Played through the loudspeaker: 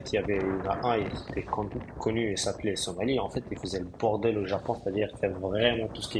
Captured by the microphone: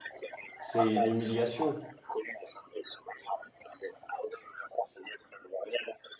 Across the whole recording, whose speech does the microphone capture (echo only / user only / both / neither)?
both